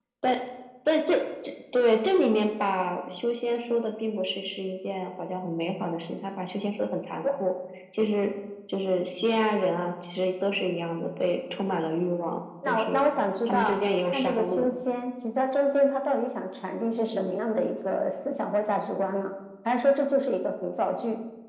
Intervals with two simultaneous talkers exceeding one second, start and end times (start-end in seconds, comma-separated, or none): 13.4-14.8